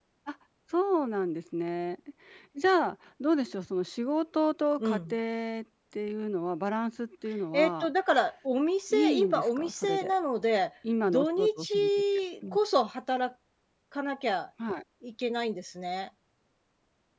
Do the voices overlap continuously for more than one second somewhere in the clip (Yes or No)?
Yes